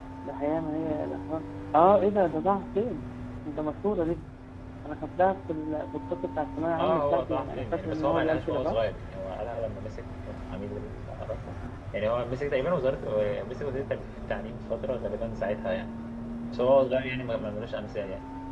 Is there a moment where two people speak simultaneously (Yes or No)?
Yes